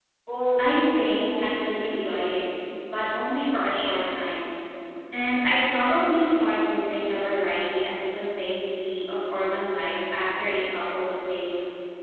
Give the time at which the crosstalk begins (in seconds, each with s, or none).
0.6 s